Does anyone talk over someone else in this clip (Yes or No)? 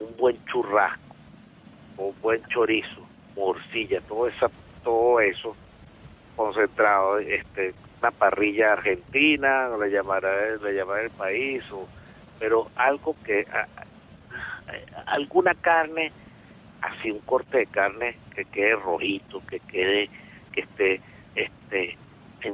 No